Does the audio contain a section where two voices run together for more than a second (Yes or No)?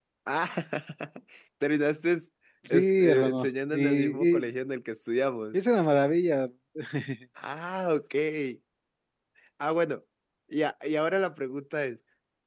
Yes